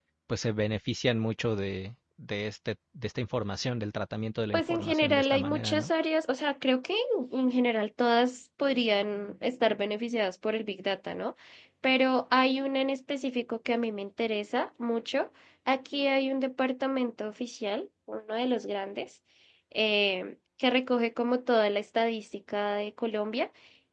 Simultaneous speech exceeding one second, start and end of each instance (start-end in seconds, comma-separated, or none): 4.5-5.9